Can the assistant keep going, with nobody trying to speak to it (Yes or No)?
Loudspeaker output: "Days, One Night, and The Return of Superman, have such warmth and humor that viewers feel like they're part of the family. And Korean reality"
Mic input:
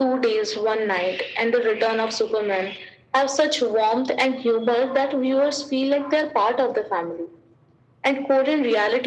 Yes